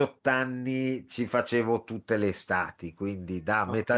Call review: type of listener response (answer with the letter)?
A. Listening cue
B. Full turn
A